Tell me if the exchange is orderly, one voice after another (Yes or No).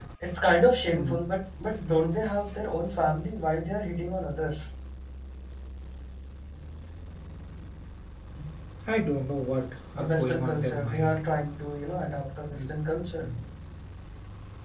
No